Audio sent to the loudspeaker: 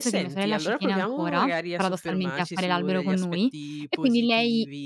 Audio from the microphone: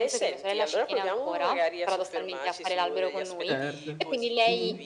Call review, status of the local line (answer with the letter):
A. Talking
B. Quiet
A